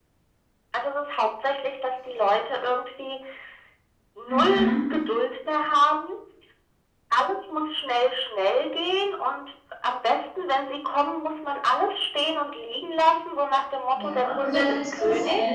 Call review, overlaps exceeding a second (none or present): present